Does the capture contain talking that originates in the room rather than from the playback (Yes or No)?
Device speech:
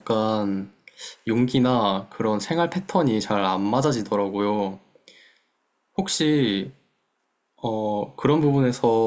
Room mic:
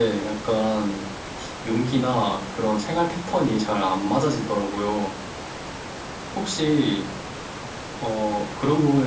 No